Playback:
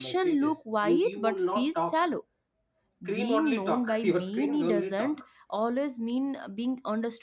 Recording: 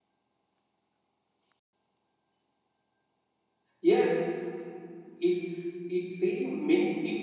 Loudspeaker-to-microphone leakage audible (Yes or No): No